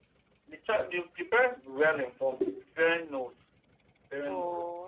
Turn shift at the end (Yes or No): Yes